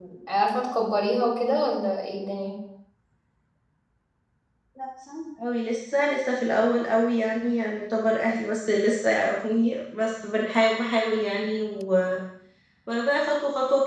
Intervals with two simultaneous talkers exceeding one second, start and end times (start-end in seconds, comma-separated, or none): none